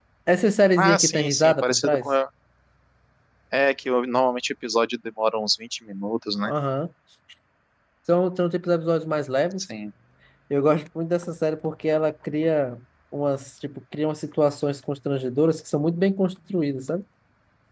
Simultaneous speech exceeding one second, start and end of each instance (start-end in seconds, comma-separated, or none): 0.8-2.1